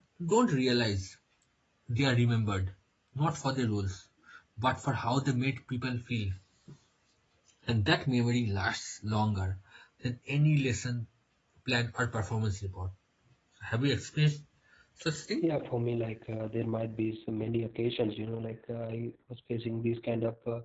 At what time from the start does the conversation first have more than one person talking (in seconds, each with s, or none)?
none